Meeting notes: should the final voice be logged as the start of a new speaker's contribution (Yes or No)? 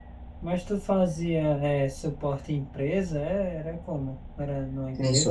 Yes